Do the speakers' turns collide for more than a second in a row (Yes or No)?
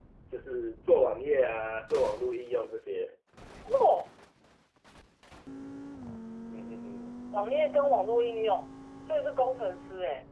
No